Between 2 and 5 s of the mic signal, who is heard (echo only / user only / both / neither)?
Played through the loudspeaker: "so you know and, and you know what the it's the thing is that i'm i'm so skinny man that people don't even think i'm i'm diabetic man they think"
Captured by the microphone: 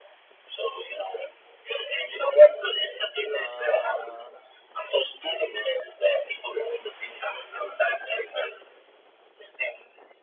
both